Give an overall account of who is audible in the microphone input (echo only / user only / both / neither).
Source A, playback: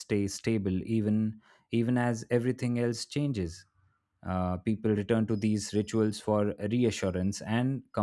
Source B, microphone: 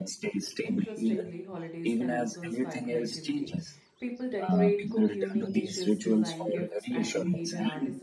both